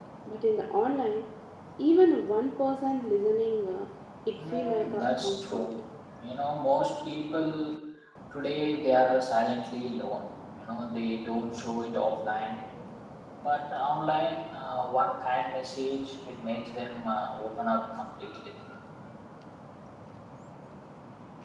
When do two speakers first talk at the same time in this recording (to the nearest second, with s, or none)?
4 s